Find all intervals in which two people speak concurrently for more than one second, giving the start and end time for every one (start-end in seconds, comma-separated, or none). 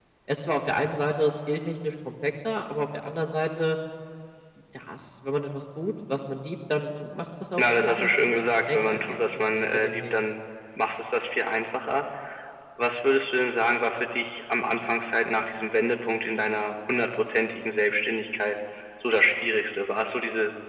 7.6-10.1